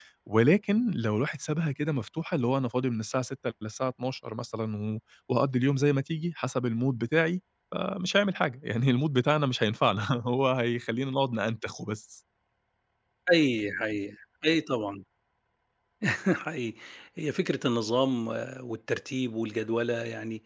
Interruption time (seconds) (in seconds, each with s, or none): none